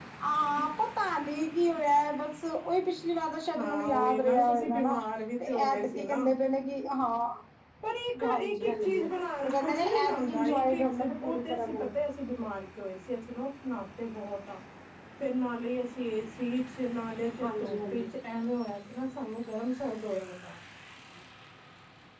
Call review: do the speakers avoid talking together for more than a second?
No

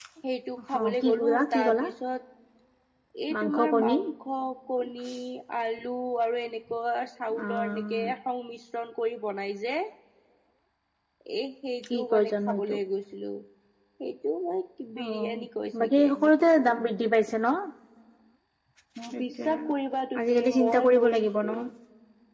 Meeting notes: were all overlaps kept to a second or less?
No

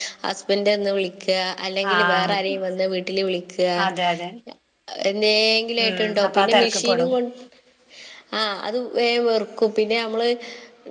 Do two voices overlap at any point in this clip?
Yes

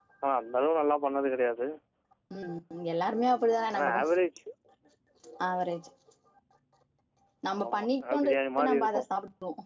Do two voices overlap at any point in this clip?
Yes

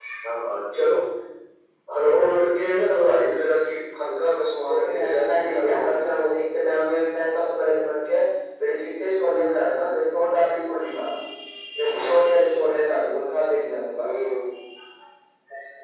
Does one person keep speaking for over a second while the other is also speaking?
Yes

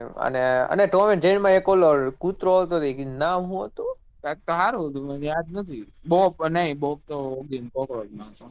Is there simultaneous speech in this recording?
No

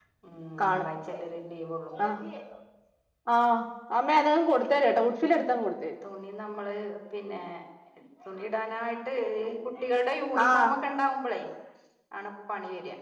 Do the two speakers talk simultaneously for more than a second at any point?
No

